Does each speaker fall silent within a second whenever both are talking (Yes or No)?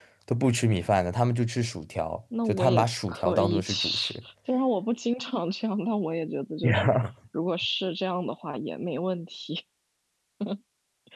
No